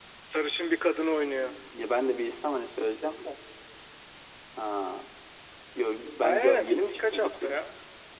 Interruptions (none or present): present